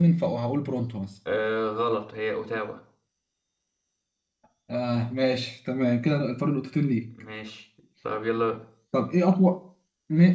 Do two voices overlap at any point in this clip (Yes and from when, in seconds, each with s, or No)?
No